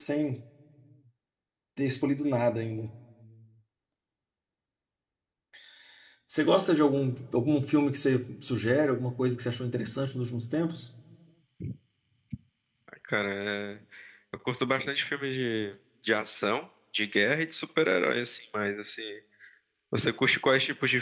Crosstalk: none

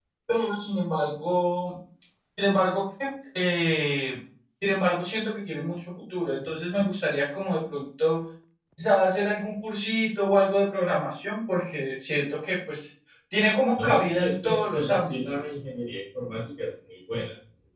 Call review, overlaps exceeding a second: present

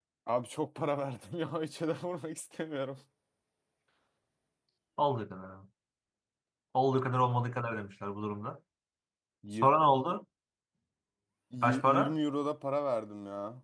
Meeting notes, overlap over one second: none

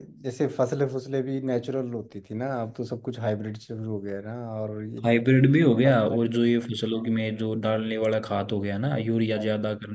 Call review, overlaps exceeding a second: none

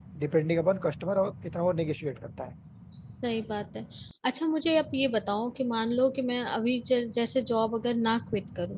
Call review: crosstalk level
none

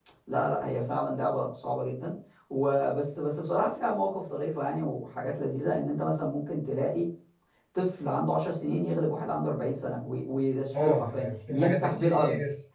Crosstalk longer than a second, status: present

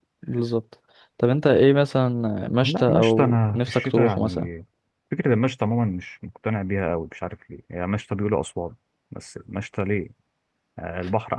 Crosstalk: present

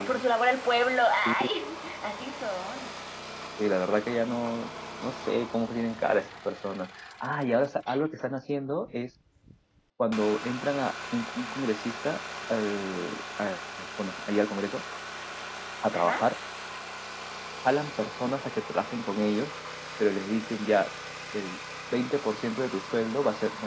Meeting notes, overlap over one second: none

